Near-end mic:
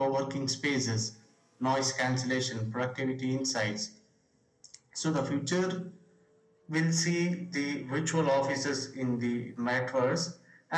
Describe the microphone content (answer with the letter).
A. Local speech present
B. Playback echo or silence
B